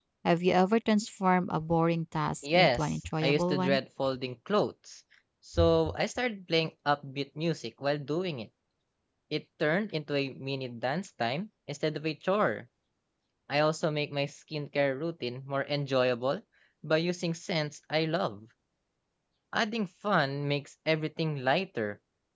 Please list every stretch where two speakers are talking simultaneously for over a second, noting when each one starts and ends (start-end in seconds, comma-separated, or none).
2.4-3.8